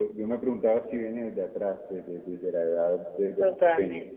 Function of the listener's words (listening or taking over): taking over